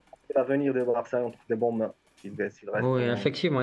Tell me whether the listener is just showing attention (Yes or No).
No